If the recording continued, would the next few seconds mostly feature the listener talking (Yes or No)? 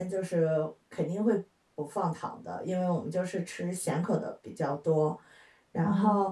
No